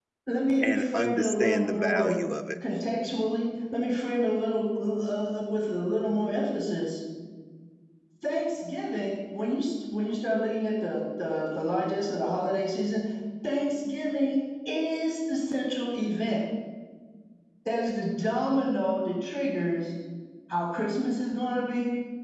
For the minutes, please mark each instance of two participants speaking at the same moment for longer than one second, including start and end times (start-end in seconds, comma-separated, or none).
0.6-2.2